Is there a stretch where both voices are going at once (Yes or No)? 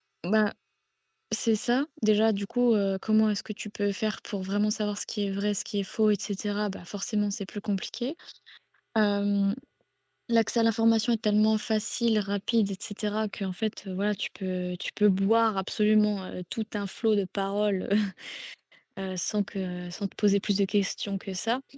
No